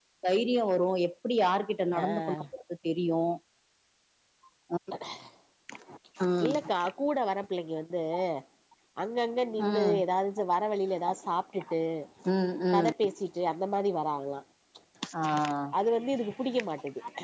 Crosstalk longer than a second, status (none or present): none